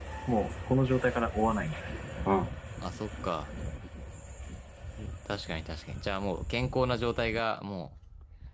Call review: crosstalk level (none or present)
none